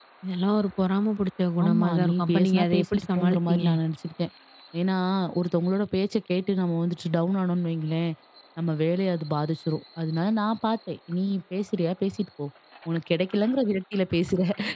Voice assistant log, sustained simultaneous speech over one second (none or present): present